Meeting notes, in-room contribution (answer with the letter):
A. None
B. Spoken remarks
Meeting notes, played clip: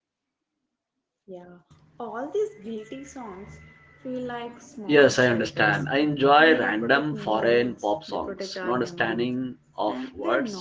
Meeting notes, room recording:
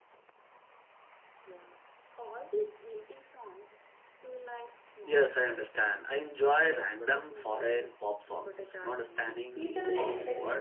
B